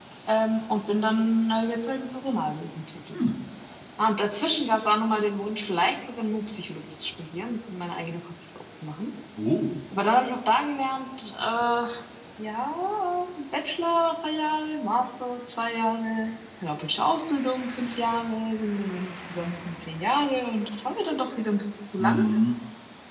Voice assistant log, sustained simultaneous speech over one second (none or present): none